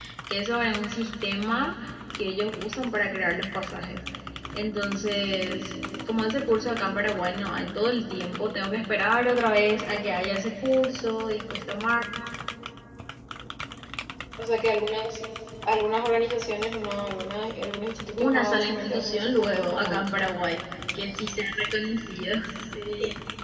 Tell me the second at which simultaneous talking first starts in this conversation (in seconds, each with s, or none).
18.2 s